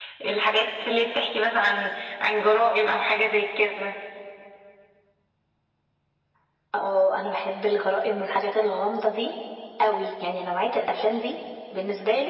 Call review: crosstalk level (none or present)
none